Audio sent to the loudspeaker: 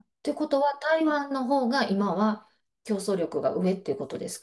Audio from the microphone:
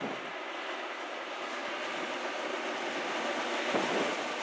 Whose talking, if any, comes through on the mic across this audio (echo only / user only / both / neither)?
neither